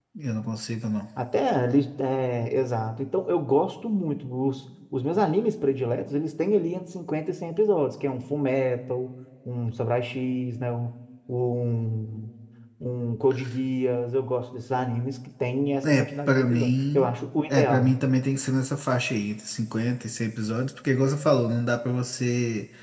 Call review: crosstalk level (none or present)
present